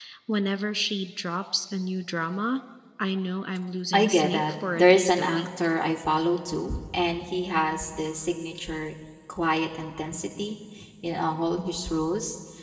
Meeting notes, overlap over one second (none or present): present